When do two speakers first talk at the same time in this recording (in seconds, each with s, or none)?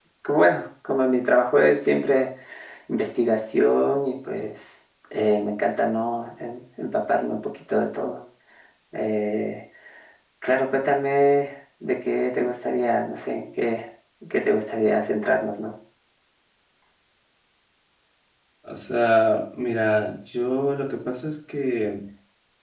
none